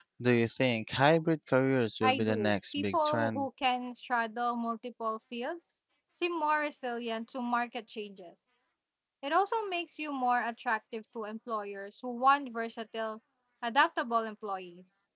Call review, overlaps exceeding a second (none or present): present